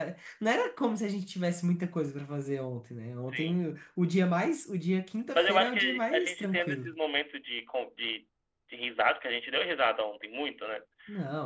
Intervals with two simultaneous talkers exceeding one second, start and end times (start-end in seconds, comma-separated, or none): 5.3-6.9